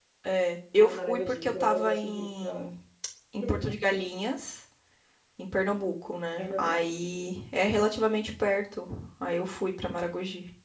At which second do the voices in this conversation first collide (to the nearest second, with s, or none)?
1 s